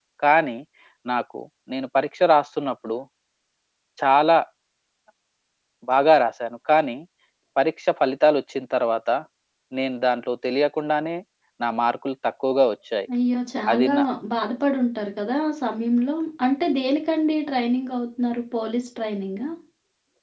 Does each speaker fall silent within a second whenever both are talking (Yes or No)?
Yes